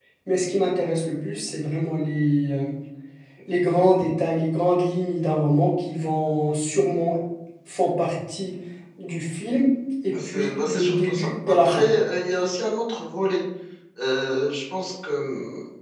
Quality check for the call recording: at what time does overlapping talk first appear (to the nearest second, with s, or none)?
10 s